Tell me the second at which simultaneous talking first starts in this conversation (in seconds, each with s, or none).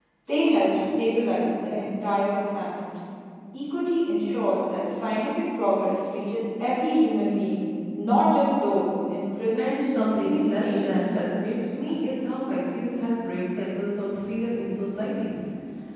9.6 s